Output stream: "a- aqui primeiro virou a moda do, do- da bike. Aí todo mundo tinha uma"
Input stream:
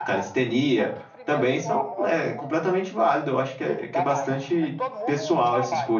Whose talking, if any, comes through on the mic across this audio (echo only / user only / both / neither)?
both